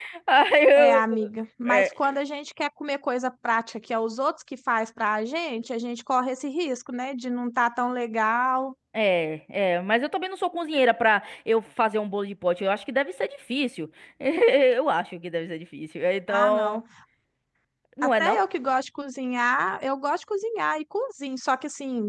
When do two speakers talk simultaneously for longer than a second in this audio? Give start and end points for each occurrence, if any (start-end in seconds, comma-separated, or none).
none